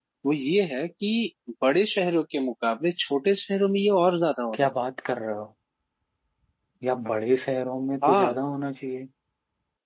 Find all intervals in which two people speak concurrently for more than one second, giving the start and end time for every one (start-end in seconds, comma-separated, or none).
none